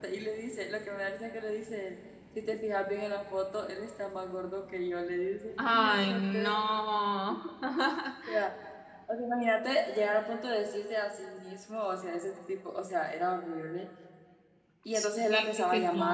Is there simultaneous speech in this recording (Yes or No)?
Yes